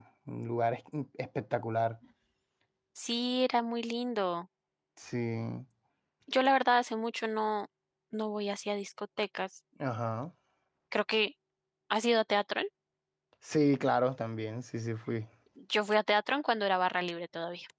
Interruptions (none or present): none